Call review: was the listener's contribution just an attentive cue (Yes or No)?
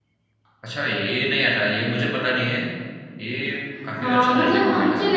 No